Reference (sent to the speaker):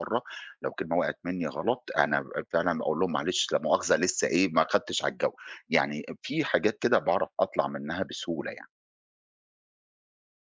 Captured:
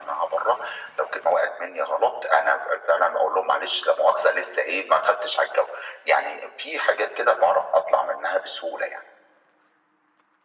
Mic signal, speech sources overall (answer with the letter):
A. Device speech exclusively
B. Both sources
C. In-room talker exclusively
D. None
A